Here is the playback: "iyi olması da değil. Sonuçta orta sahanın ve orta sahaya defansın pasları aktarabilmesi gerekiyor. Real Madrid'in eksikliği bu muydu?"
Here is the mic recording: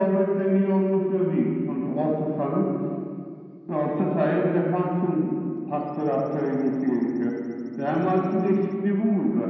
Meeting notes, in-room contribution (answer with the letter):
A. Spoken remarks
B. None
B